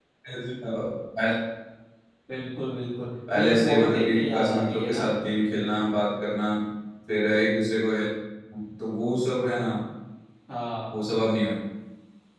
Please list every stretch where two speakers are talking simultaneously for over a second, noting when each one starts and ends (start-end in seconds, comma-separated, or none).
3.4-5.0